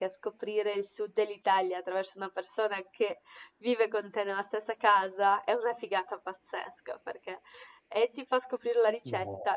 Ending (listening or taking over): listening